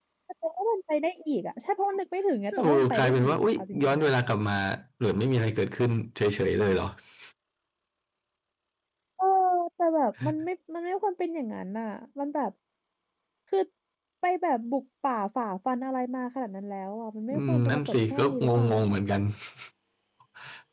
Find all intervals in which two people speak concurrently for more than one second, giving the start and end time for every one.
2.6-4.1, 17.3-19.0

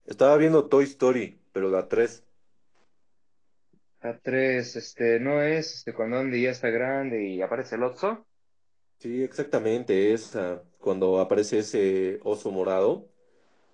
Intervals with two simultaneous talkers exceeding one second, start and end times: none

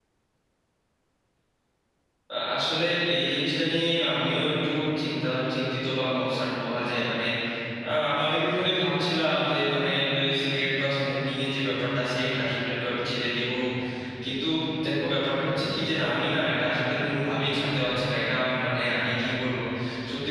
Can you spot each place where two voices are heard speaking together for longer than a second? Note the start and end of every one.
none

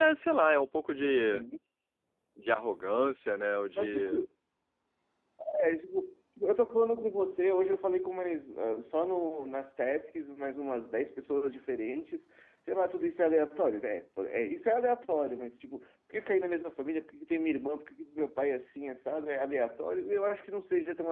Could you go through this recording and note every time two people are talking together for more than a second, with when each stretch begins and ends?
none

